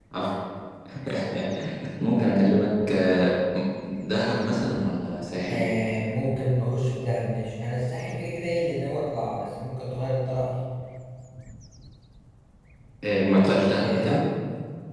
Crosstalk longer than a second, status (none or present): none